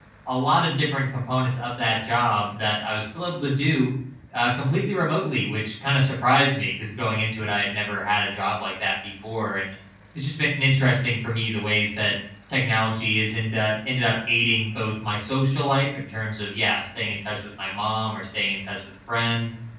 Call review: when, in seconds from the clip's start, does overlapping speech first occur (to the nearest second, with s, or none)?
none